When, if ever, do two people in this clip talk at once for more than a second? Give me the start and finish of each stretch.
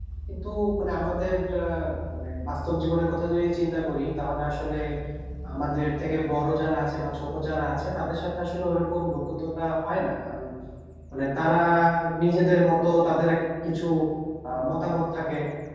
none

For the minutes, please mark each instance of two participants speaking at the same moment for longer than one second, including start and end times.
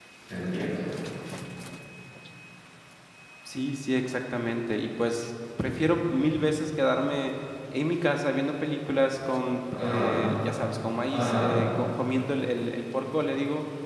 none

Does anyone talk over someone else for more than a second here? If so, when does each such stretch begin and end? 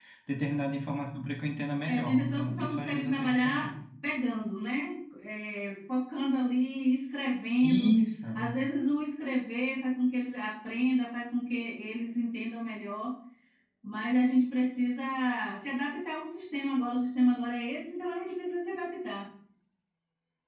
1.9-3.7

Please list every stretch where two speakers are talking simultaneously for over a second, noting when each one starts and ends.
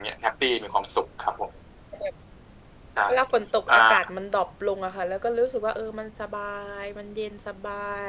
none

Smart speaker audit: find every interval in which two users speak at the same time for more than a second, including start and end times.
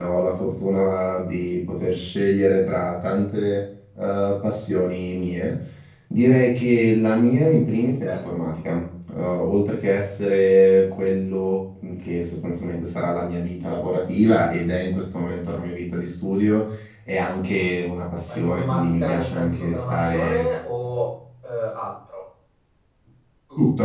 18.3-20.4

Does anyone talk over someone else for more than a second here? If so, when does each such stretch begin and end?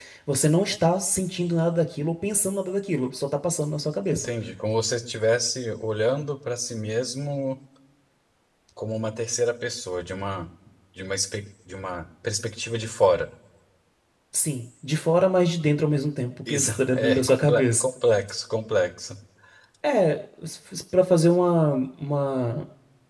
16.5-17.9

